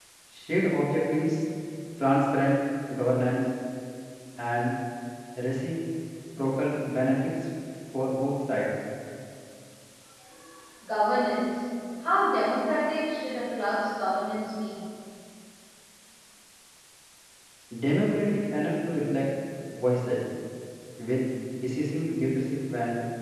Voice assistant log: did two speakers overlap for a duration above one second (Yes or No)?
No